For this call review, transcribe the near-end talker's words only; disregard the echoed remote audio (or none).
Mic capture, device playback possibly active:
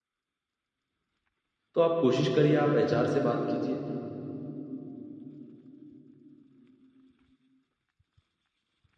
तो आप कोशिश करिए आप एचआर से बात कीजिए